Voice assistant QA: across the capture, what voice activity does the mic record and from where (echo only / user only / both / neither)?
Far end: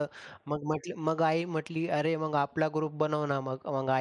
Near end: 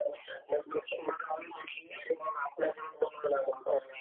echo only